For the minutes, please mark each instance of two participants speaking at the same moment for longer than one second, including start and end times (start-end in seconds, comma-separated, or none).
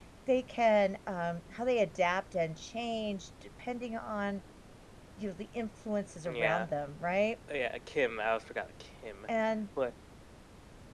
none